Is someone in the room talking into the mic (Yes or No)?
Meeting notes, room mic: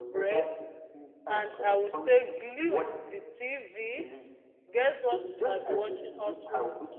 Yes